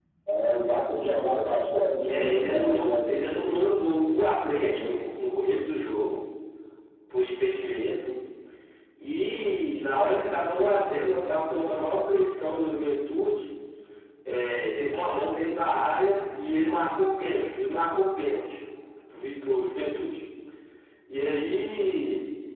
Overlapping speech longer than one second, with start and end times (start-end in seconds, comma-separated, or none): 2.1-3.8